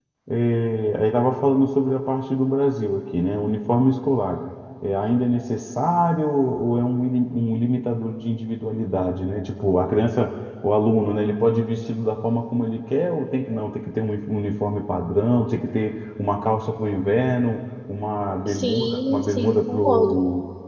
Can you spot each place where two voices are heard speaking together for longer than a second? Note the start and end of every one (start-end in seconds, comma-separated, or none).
18.5-20.1